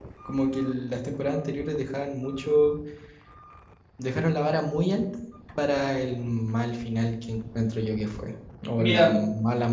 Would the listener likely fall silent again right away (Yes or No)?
Yes